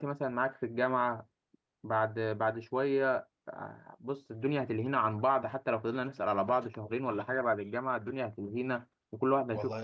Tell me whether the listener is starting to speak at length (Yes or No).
Yes